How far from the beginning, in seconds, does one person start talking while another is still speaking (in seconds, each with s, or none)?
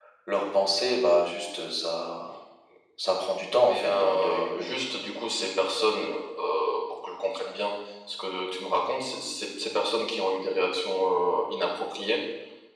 3.3 s